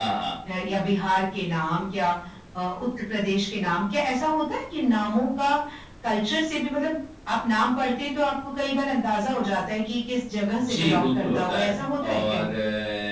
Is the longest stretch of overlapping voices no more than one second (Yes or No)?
No